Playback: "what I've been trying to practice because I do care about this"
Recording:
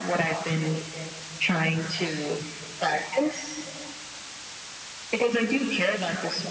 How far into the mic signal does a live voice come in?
none

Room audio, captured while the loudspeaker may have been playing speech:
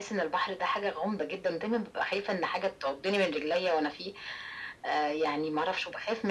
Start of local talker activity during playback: none

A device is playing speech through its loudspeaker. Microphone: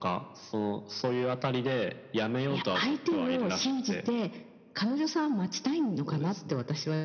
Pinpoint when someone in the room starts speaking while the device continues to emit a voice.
none

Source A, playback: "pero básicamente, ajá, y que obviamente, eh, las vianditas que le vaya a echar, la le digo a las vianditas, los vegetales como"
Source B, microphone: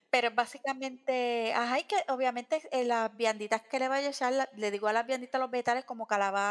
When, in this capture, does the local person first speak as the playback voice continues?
none

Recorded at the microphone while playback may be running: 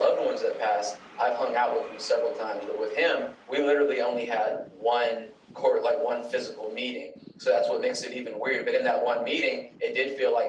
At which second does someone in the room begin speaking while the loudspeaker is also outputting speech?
none

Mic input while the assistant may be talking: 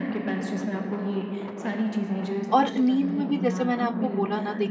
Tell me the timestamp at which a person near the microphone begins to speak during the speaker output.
2.5 s

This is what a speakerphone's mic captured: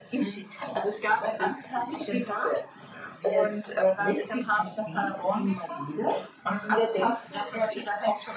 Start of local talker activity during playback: none

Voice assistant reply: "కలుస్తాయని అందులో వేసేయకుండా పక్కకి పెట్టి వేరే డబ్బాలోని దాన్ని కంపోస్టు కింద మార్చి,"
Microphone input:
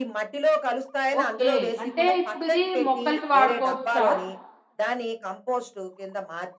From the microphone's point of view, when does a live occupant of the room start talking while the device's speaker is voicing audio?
1.2 s

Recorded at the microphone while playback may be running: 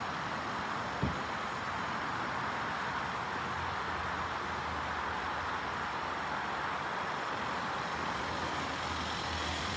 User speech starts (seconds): none

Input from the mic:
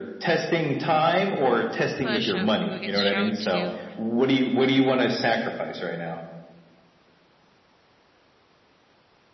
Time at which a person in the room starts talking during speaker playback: 2.0 s

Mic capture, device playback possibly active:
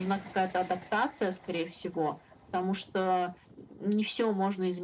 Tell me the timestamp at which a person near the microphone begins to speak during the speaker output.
none

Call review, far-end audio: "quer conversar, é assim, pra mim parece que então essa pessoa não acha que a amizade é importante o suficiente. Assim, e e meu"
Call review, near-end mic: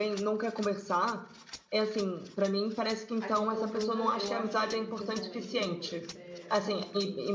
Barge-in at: 3.2 s

